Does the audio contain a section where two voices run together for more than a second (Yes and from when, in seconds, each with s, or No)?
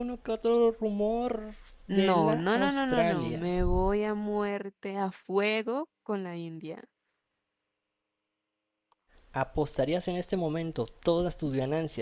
Yes, from 1.9 s